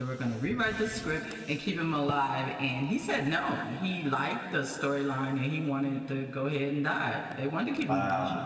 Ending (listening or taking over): taking over